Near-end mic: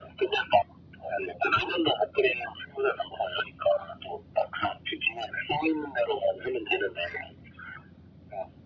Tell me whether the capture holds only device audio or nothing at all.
Yes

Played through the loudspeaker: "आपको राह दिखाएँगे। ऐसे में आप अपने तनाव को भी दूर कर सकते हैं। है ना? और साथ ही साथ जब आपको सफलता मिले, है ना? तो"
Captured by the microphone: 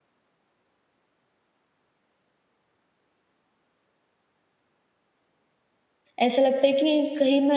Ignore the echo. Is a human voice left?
Yes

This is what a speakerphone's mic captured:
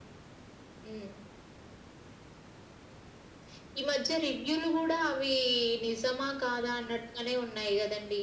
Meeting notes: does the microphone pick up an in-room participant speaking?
No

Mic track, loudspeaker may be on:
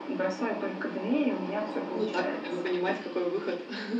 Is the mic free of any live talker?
Yes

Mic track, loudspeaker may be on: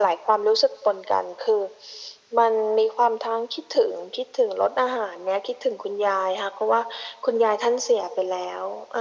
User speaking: No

